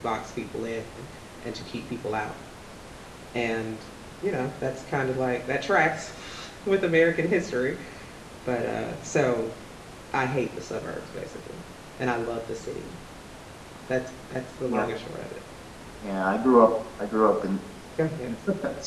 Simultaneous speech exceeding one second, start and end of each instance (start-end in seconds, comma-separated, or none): none